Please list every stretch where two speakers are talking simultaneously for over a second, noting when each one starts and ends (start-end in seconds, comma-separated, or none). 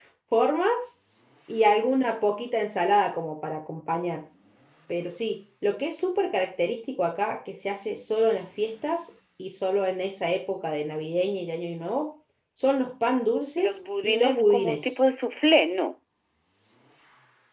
13.6-14.9